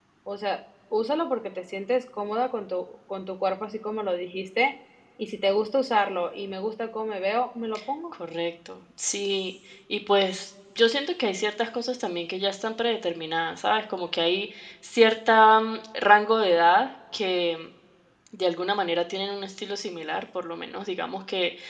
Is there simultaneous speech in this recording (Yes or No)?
No